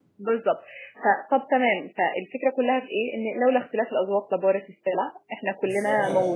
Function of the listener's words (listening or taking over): taking over